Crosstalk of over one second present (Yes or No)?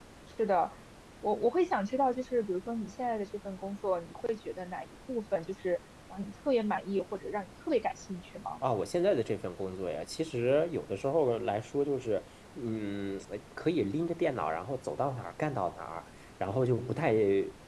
No